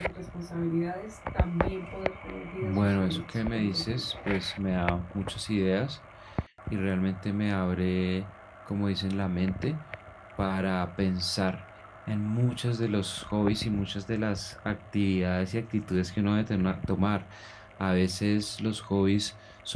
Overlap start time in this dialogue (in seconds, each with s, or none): 2.6 s